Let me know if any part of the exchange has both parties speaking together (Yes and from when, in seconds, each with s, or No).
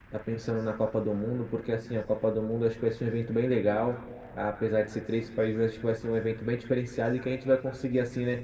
No